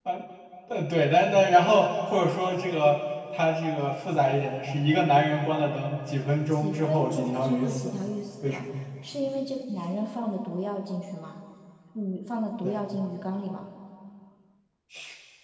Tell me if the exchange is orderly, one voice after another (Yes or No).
No